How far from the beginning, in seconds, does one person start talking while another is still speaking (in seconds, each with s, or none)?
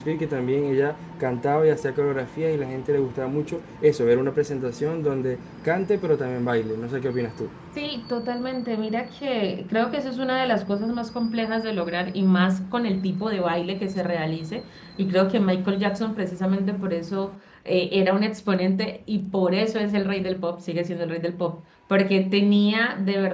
none